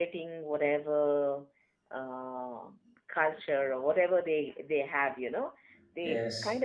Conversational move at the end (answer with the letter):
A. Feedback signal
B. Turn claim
A